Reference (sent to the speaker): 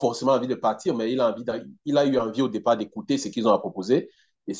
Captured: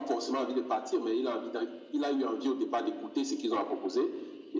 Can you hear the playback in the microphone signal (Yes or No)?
Yes